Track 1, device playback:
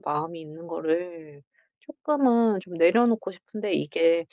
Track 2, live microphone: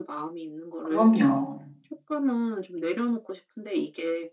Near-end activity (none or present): present